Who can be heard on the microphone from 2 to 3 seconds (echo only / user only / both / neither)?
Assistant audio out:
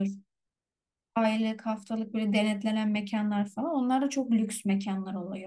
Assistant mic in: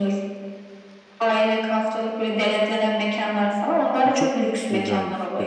echo only